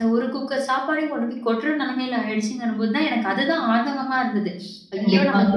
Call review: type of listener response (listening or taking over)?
taking over